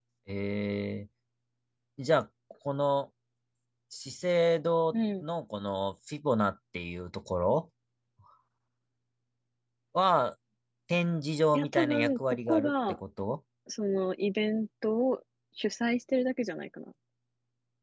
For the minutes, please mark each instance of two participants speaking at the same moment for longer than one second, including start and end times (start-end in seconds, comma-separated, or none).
11.5-13.0